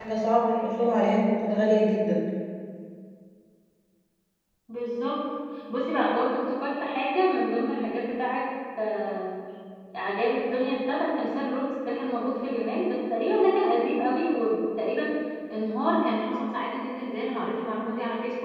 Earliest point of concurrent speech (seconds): none

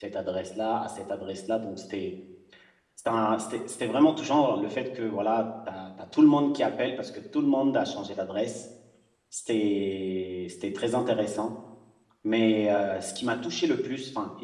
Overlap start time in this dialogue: none

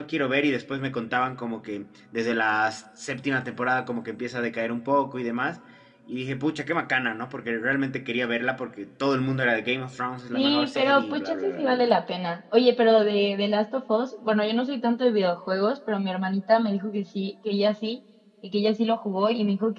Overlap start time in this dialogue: 10 s

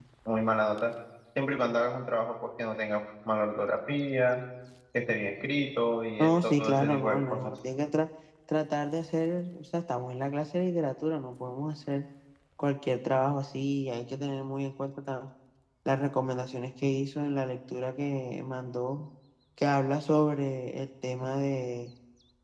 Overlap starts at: 6 s

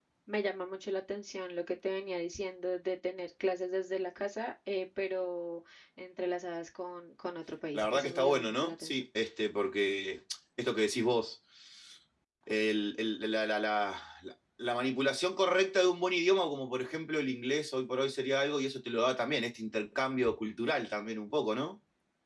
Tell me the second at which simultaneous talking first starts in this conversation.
8 s

